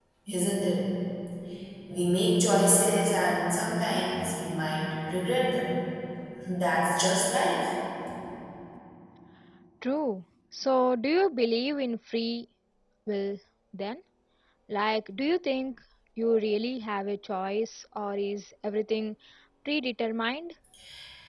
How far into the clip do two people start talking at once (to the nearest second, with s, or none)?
none